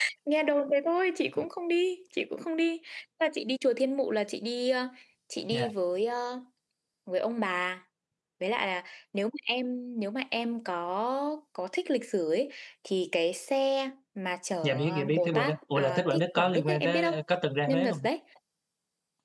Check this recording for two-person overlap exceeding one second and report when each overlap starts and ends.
14.6-17.2

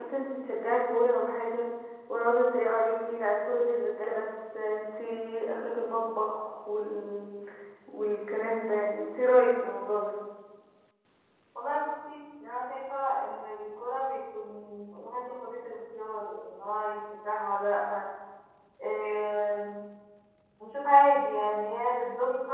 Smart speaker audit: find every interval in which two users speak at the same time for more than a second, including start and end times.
none

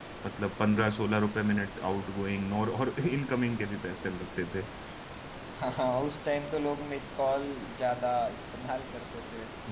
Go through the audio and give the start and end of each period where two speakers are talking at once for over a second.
none

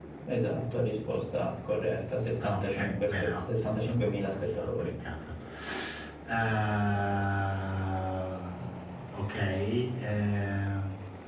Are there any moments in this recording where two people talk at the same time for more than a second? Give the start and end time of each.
2.4-4.9

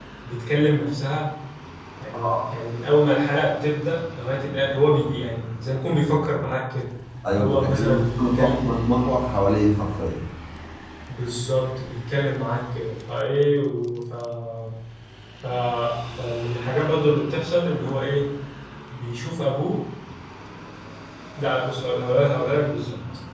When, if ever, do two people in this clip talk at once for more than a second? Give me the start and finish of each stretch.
7.4-8.7

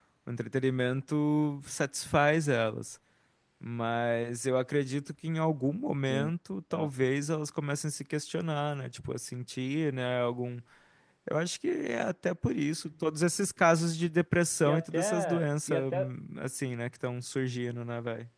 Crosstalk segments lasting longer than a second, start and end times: 14.6-16.1

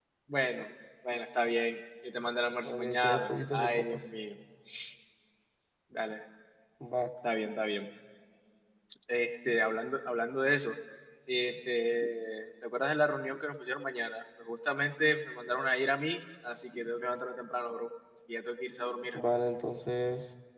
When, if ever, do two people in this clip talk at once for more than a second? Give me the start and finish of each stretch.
2.6-4.0

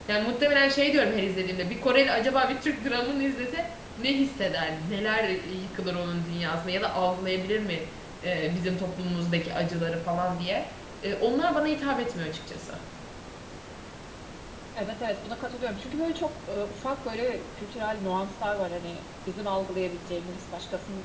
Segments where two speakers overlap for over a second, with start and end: none

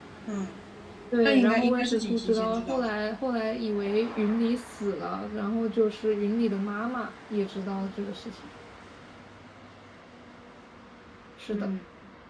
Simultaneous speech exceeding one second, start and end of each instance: 1.2-2.9

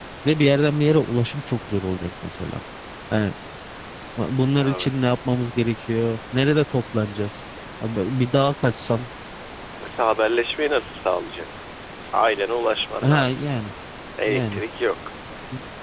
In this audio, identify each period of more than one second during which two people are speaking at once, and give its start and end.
none

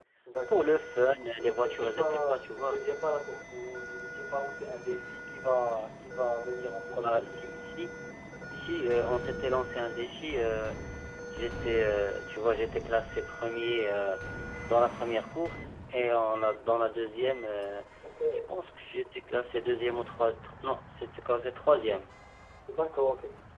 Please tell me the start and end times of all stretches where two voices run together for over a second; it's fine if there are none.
1.4-2.8

